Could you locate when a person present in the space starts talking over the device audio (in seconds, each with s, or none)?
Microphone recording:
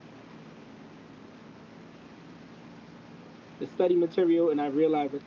3.6 s